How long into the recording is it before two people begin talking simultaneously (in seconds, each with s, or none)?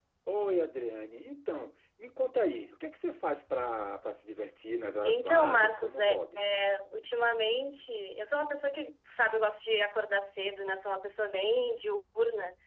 5.0 s